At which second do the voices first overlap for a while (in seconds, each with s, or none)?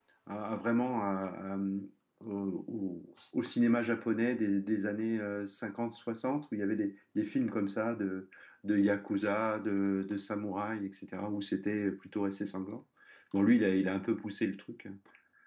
none